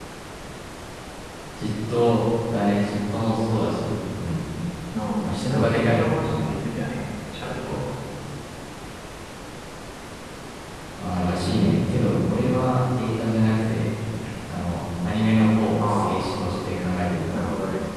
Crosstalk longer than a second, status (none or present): present